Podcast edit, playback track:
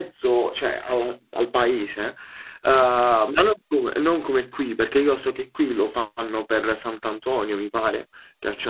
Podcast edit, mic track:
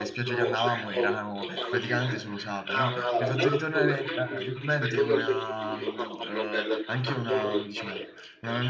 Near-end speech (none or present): present